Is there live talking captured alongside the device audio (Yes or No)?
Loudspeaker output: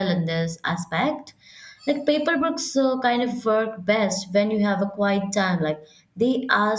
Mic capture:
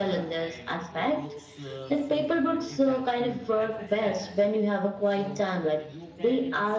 Yes